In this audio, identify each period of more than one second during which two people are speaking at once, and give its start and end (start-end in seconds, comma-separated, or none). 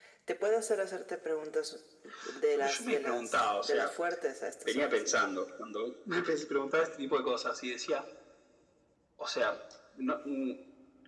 2.6-3.9